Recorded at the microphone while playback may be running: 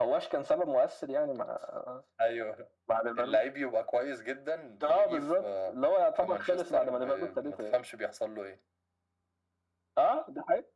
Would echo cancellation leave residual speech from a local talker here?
No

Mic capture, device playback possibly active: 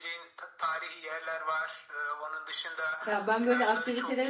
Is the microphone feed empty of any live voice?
No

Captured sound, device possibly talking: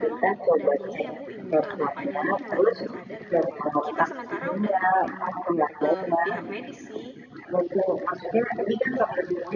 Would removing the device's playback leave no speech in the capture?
No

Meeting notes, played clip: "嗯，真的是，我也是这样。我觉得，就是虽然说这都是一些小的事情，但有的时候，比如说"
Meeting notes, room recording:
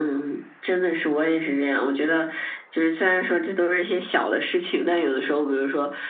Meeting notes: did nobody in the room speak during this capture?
Yes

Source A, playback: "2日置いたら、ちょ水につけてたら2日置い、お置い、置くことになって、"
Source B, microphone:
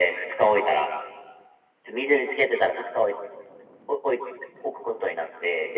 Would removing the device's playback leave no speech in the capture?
Yes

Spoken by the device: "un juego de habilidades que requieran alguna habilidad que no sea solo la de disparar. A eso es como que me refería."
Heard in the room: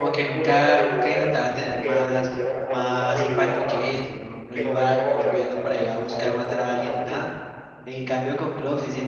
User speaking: Yes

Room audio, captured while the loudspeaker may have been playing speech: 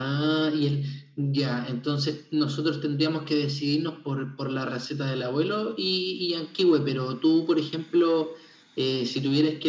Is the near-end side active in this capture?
No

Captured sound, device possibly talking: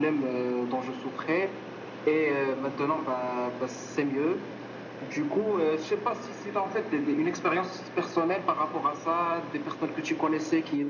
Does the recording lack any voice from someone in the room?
Yes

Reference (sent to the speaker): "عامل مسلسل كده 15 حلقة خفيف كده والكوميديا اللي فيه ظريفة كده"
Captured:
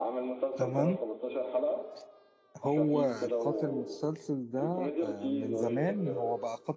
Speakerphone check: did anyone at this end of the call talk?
Yes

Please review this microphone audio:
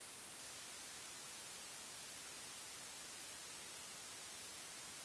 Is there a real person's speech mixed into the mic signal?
No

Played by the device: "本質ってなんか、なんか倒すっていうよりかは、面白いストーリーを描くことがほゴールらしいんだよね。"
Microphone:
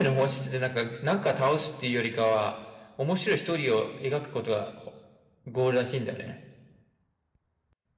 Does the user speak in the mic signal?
No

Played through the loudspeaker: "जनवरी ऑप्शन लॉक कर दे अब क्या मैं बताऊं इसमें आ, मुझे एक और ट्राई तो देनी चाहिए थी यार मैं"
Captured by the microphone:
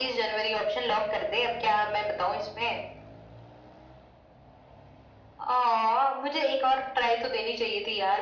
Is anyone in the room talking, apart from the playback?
No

